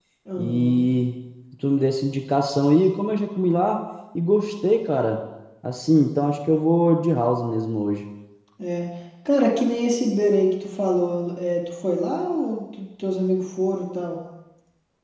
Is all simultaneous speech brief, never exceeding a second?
Yes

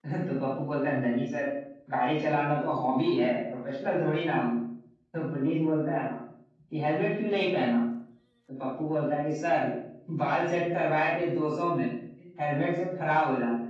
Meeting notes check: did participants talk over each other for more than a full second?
No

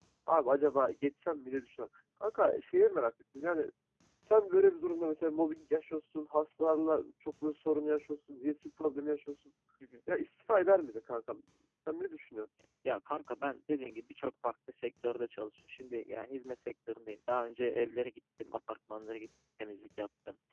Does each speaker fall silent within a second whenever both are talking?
Yes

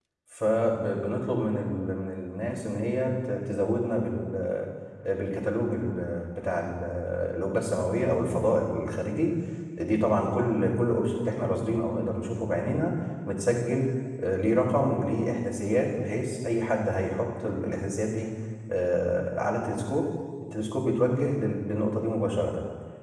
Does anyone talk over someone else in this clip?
No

